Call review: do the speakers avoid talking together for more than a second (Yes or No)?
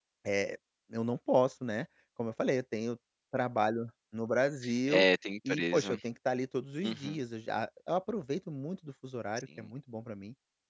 Yes